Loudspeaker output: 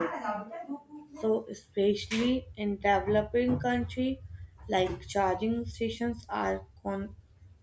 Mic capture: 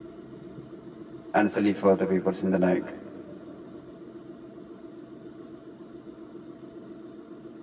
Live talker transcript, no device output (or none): and silly for the people in the night